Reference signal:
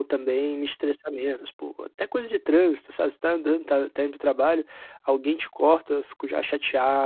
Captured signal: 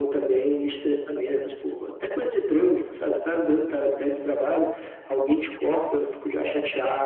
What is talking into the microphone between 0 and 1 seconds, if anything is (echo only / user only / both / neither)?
echo only